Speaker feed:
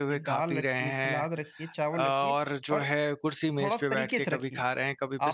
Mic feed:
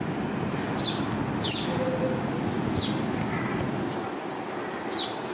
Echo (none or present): none